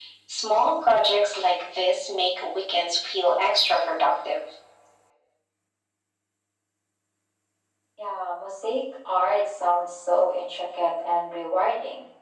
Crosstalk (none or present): none